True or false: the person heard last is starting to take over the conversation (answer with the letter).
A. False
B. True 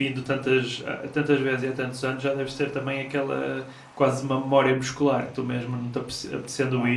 A